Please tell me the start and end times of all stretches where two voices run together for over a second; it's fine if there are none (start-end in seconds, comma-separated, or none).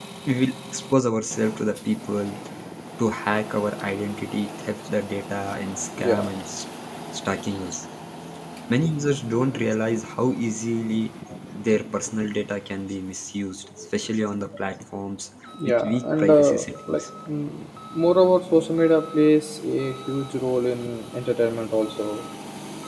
15.7-17.0